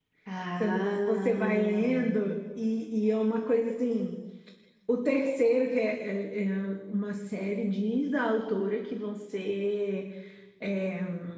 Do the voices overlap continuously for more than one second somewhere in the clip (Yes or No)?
Yes